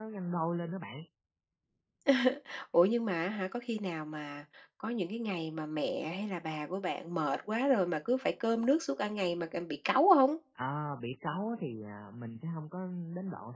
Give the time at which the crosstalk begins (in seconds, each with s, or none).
none